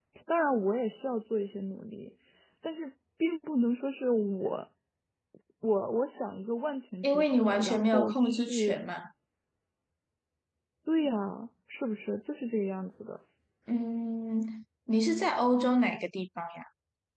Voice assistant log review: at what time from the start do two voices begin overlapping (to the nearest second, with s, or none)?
7 s